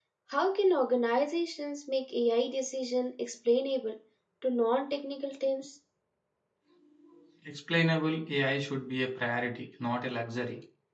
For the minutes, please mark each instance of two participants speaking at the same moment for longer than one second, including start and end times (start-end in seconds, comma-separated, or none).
none